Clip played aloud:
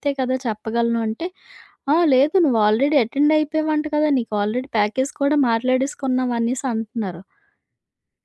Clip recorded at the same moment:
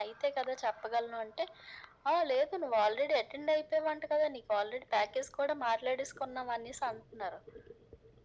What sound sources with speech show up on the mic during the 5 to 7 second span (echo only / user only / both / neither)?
echo only